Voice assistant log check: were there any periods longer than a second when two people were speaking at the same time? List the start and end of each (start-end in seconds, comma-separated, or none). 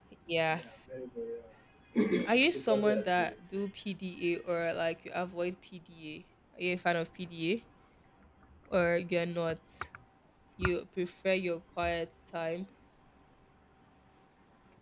2.2-3.6